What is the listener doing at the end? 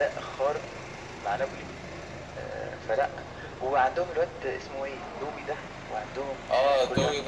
taking over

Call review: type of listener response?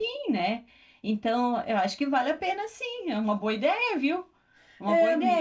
taking over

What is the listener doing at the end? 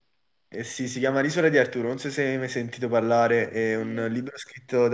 listening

